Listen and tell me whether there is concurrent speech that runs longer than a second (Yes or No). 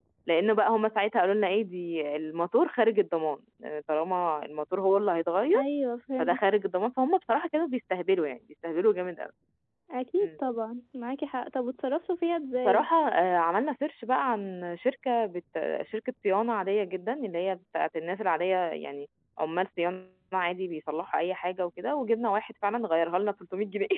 No